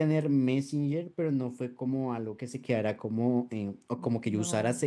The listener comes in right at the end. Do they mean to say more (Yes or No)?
No